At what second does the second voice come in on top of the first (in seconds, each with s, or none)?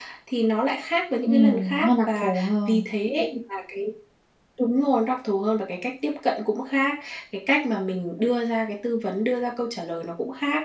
1.3 s